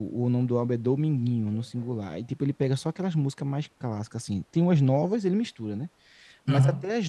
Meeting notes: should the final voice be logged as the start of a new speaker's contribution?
No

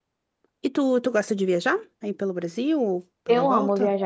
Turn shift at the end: Yes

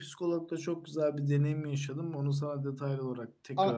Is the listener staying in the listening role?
No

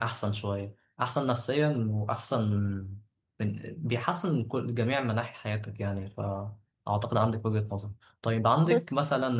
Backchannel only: Yes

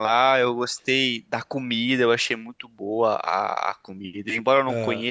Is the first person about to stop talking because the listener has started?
No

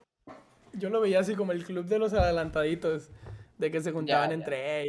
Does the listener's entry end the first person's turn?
No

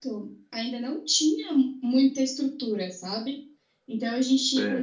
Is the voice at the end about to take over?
No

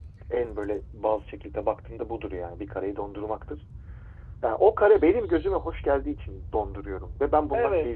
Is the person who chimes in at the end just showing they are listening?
No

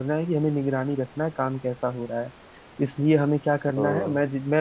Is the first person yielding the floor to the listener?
No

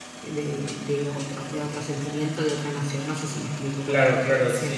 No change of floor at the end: No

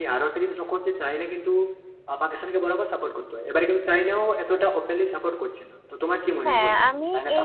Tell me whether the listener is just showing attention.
No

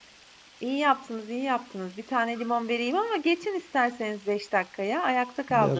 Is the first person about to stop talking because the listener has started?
Yes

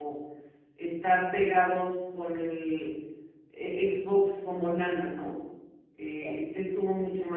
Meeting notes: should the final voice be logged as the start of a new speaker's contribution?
No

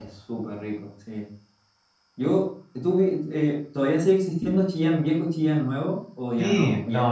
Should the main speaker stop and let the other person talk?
Yes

